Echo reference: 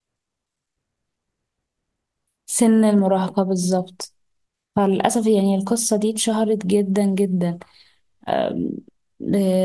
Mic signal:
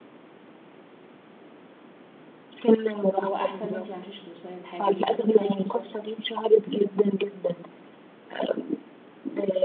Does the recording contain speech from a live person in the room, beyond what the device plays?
Yes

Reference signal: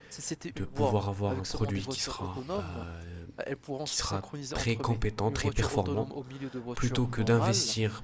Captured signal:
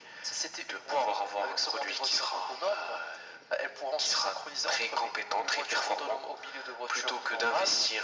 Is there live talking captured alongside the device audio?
No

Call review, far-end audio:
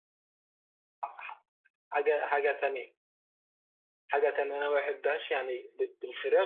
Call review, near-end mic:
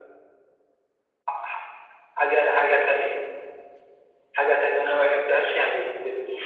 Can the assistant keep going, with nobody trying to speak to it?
Yes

